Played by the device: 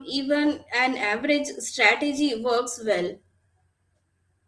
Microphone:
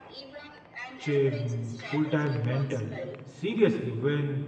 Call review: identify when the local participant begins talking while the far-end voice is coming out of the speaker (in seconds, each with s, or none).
1.0 s